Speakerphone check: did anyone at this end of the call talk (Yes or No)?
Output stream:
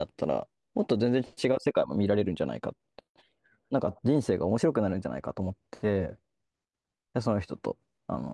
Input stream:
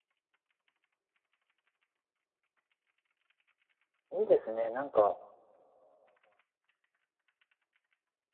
Yes